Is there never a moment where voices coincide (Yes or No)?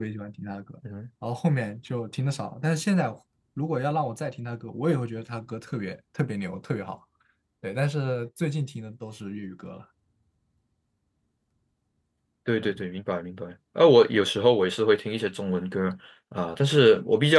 Yes